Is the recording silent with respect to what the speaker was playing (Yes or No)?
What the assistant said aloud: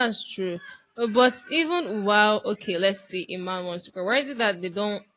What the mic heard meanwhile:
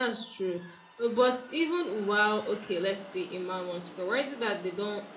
No